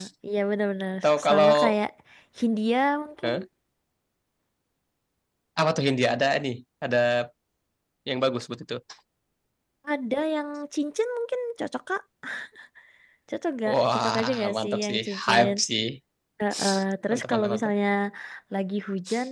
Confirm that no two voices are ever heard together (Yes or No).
No